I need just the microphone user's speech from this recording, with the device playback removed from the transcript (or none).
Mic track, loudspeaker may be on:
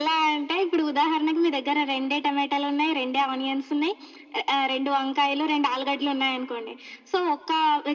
none